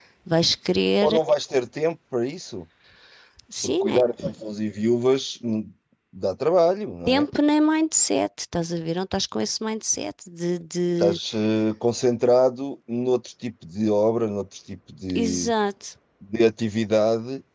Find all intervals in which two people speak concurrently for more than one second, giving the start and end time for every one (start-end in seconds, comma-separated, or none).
none